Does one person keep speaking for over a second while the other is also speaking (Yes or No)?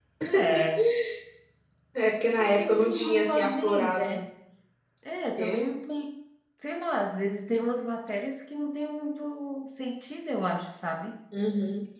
Yes